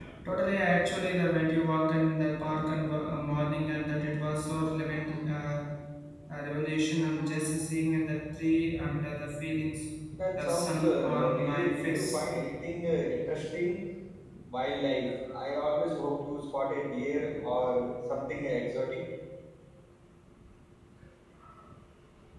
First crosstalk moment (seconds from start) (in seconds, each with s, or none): 10.4 s